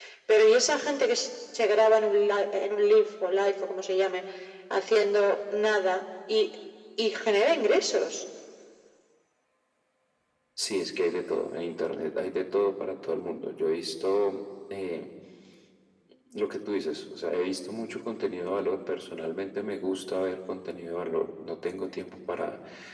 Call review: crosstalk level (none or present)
none